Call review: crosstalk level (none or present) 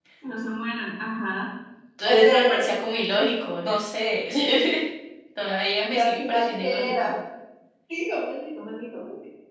present